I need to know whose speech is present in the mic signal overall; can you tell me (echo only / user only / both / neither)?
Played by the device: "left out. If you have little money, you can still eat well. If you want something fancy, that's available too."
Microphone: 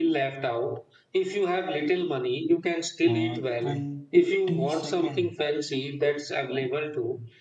both